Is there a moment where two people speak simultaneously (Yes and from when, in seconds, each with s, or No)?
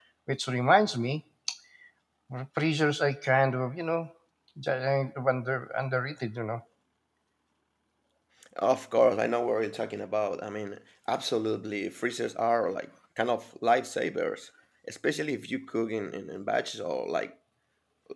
No